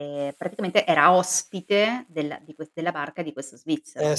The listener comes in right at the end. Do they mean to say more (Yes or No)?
Yes